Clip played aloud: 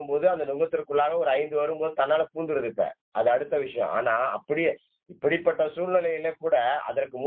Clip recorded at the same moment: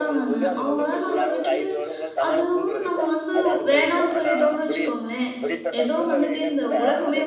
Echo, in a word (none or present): present